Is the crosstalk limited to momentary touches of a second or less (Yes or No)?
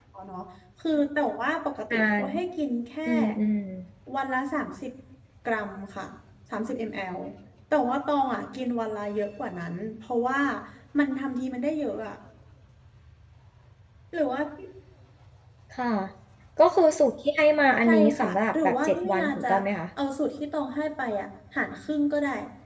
No